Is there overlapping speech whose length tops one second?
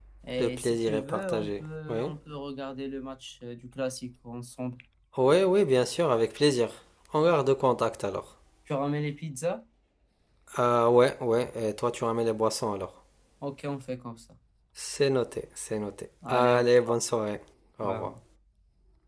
Yes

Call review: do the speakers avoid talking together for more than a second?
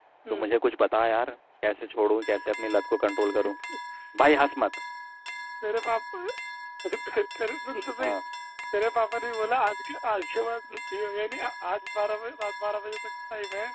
Yes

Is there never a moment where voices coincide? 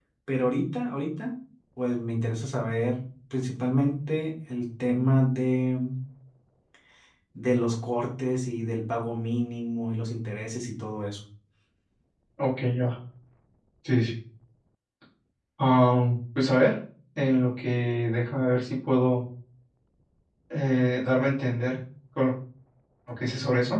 Yes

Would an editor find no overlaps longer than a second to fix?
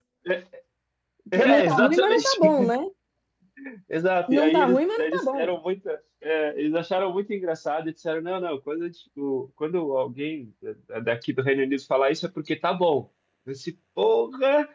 No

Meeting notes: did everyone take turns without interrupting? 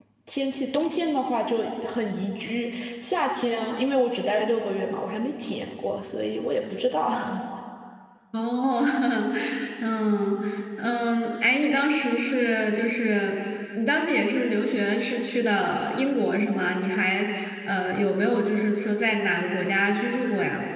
Yes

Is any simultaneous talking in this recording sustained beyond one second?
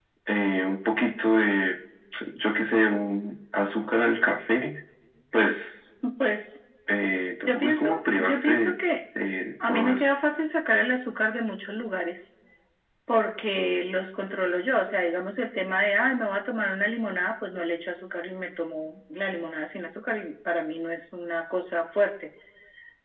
Yes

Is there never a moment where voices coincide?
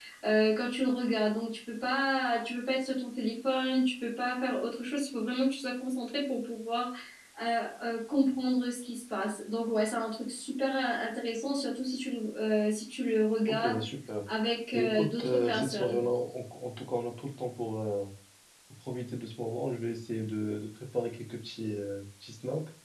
No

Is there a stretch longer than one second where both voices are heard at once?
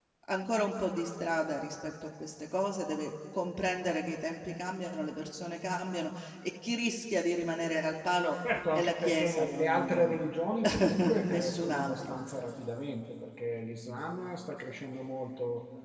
Yes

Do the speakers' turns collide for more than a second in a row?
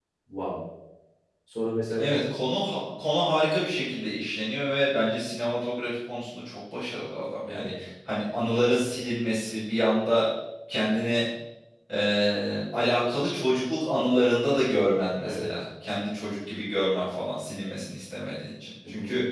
No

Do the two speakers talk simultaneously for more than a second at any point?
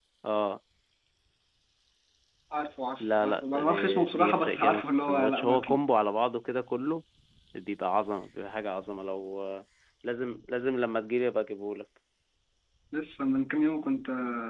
Yes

